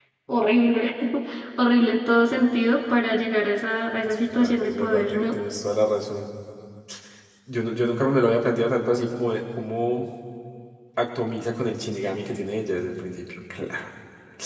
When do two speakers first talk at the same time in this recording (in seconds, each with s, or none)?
4.0 s